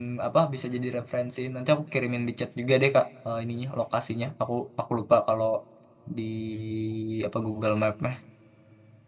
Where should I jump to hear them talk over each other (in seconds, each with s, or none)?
none